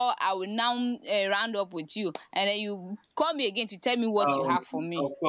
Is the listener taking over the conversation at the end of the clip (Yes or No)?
Yes